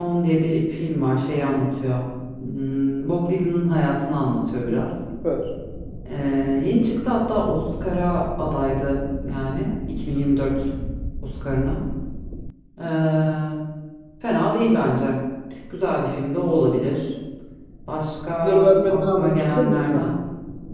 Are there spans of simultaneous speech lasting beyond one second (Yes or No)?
Yes